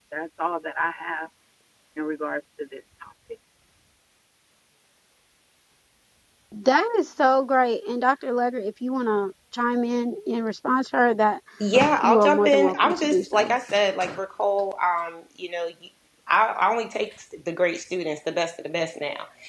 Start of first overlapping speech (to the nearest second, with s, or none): 12 s